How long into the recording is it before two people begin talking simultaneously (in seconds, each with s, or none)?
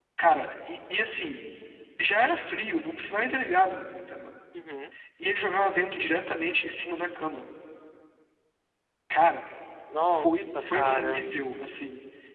10.1 s